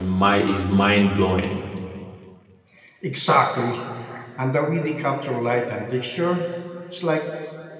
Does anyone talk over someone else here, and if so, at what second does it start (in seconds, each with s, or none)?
none